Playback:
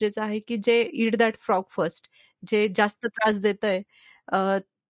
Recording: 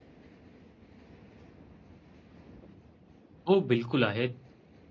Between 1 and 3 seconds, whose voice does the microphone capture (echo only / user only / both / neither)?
neither